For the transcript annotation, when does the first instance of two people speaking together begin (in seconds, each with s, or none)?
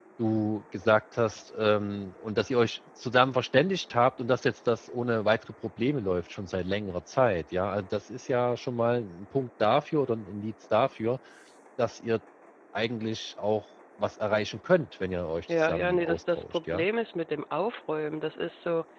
15.5 s